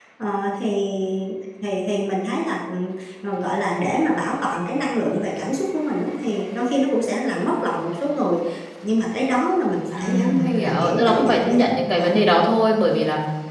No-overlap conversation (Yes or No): No